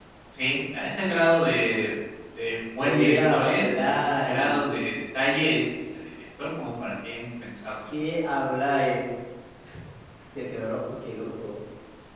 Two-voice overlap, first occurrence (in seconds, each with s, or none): 2.8 s